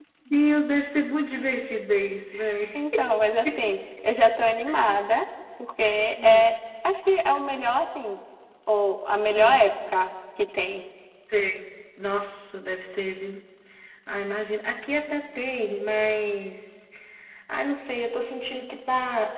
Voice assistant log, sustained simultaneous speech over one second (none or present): none